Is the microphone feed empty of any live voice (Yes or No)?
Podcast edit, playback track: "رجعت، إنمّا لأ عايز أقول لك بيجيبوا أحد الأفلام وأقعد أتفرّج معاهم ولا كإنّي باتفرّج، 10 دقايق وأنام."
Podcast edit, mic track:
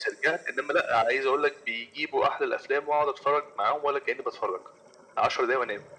Yes